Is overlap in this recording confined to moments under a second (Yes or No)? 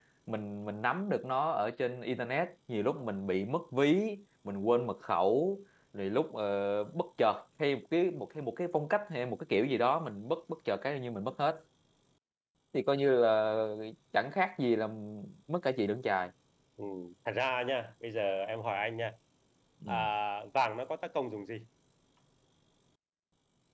Yes